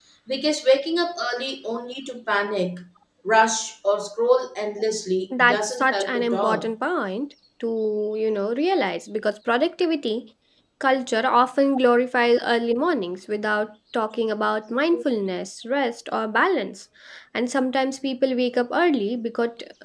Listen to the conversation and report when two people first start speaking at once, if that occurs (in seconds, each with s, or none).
5.3 s